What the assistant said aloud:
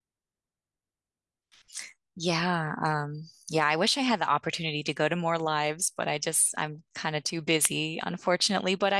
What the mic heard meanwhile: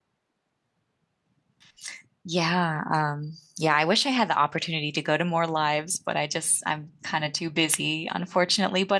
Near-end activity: none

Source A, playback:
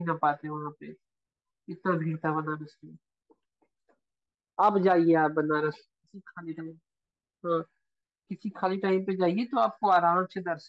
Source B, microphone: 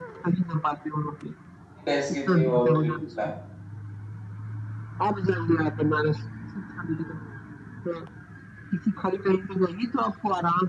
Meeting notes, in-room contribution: present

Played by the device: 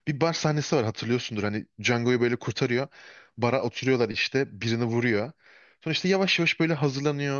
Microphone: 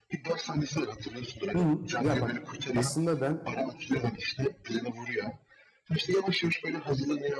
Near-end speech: present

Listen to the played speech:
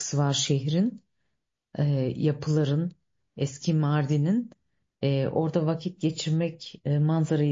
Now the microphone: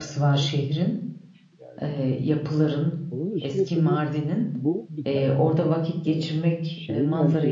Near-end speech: present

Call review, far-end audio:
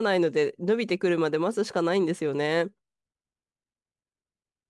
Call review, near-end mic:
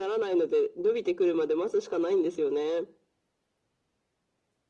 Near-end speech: none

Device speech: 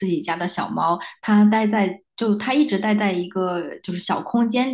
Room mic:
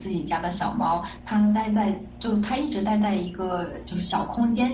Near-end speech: none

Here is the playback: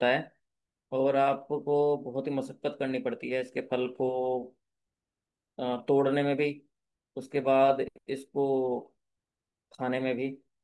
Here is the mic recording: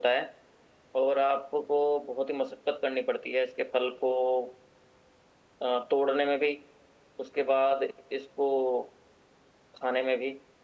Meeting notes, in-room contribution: none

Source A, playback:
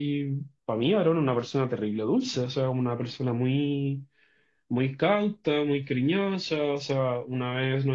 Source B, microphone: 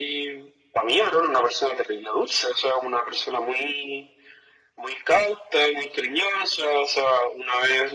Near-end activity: none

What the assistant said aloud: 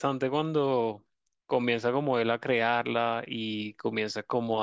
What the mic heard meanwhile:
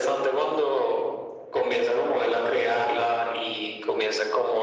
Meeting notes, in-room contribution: none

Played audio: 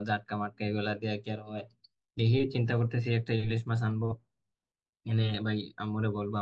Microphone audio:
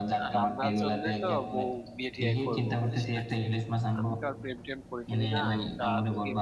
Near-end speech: present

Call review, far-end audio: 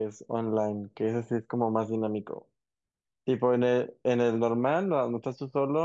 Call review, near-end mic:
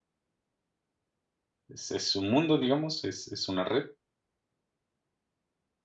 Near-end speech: present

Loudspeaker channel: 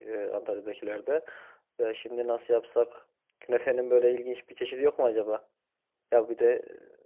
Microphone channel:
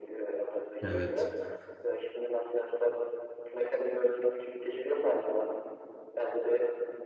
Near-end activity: present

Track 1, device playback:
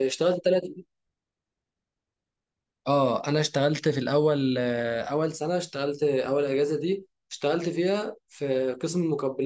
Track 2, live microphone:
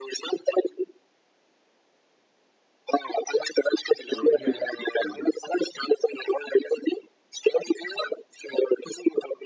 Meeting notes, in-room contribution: present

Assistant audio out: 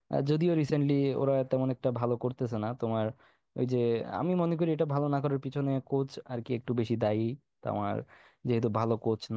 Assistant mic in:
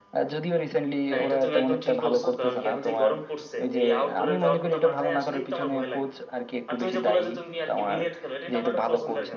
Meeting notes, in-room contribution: present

